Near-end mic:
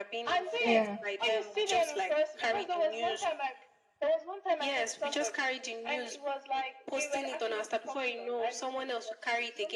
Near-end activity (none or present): present